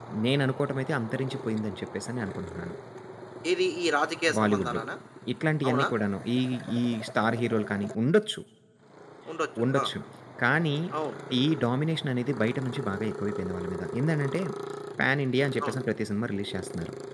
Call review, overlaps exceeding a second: none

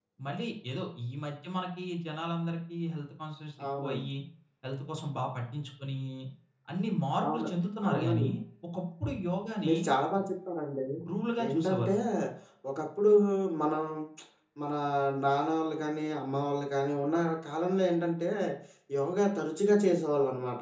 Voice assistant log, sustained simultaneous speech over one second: none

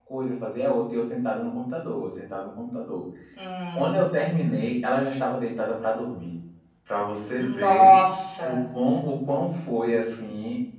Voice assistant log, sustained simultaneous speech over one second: none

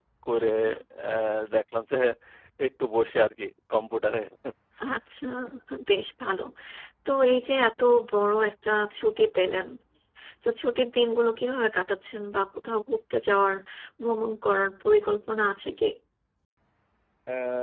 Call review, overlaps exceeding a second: none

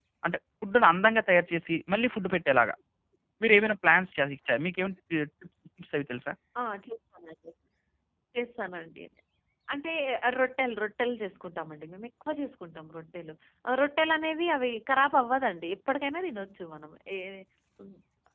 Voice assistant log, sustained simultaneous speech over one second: none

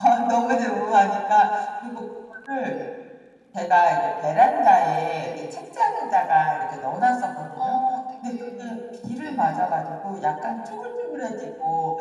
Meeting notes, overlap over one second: none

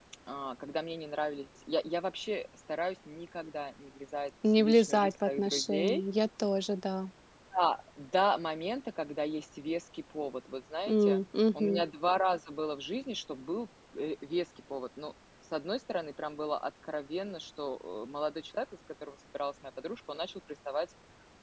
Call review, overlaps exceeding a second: present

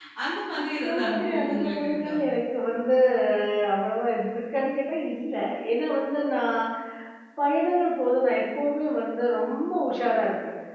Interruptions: present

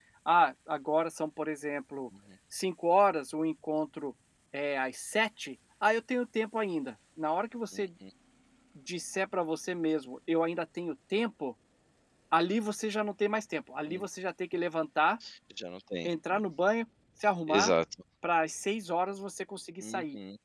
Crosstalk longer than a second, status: none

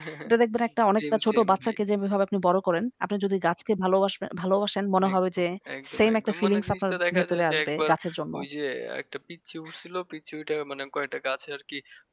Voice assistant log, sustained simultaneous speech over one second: present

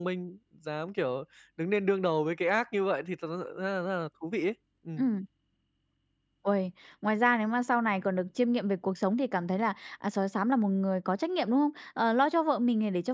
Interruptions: none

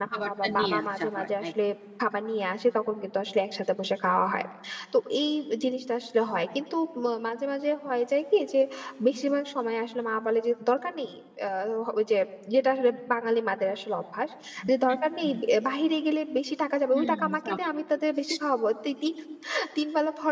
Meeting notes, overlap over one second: present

